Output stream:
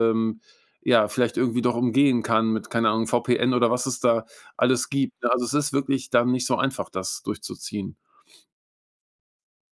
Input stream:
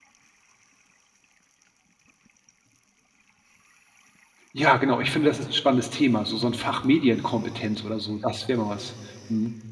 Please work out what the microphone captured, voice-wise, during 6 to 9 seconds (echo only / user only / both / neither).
user only